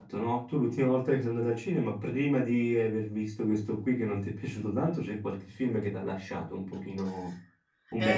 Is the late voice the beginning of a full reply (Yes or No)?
Yes